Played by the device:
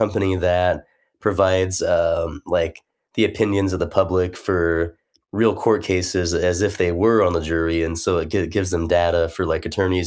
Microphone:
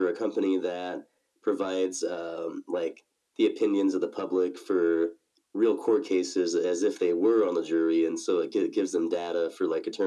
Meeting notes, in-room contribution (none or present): none